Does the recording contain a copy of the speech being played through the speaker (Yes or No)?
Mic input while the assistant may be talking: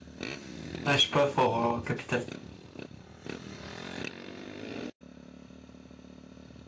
No